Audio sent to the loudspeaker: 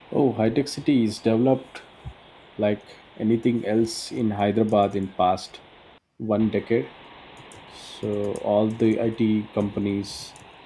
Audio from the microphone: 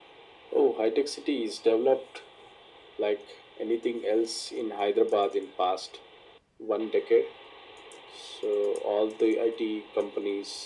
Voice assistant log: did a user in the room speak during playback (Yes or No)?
No